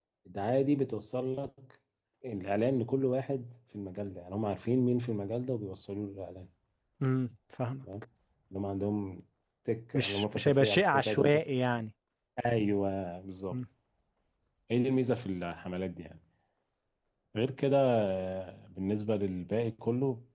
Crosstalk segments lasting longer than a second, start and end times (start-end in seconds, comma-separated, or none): 9.9-11.4